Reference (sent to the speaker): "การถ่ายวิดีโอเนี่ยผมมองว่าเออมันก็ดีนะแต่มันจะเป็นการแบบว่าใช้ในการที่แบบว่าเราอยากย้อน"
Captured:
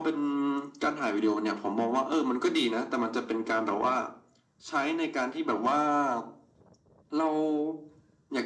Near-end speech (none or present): none